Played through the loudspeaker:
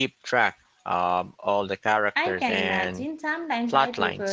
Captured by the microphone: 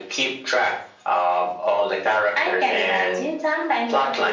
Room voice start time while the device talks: none

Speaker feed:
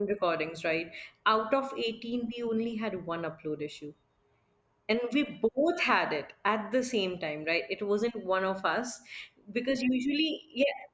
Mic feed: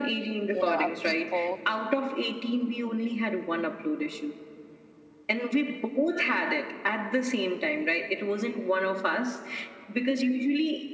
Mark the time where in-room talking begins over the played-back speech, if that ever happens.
0.5 s

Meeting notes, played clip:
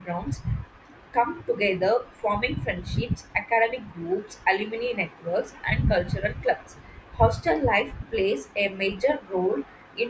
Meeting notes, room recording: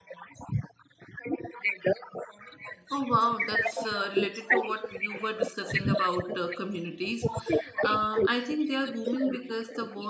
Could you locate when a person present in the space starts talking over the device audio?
2.9 s

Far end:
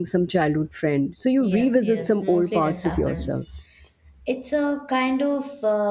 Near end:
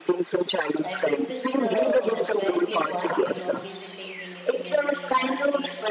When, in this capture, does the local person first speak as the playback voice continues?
0.8 s

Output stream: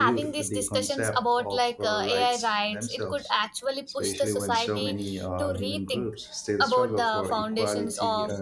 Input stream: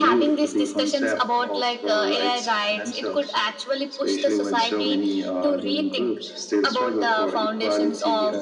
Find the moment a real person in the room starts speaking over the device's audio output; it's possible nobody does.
none

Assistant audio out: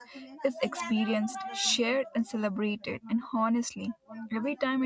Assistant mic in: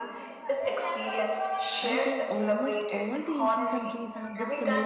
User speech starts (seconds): 1.8 s

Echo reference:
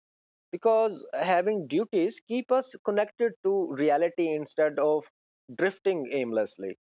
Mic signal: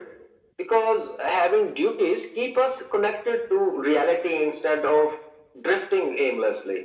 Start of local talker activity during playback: none

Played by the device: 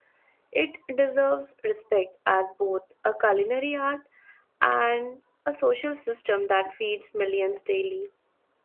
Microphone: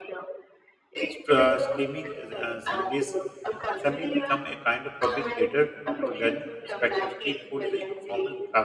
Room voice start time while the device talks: 1.1 s

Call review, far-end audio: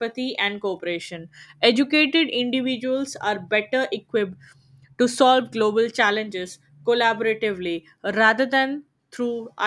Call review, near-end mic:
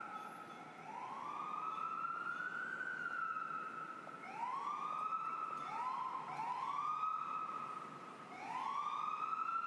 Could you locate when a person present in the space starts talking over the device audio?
none

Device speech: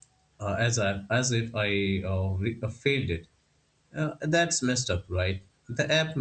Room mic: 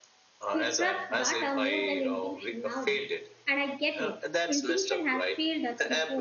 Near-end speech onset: 0.5 s

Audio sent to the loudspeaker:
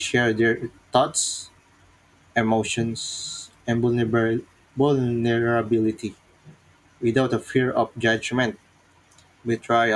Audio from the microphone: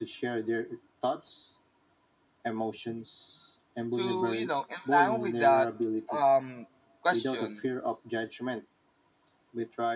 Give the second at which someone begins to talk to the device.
3.9 s

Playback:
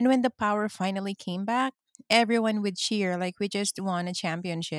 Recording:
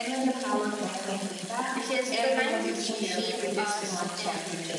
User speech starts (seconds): 1.7 s

